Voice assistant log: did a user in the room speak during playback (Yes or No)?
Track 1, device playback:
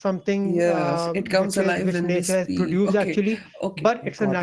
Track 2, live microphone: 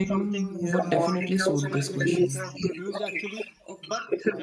Yes